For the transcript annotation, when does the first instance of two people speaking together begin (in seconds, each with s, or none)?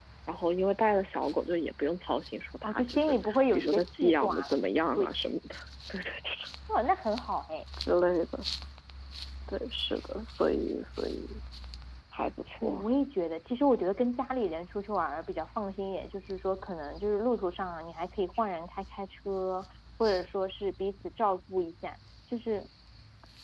2.6 s